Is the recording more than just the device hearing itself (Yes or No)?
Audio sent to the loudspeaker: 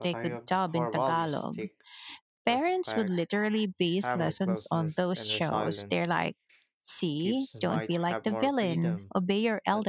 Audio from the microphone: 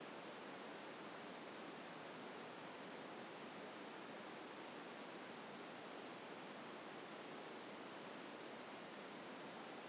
No